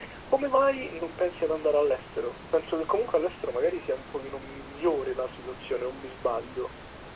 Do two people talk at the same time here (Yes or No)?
No